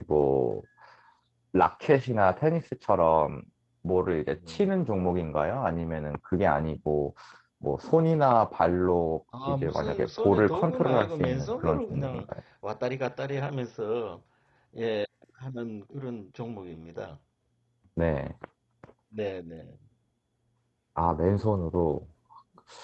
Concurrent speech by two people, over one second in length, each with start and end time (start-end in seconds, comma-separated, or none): 9.5-12.2